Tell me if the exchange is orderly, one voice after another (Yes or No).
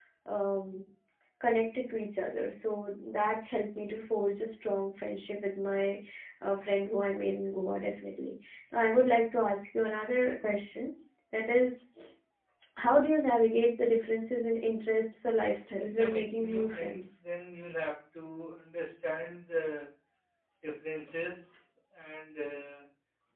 No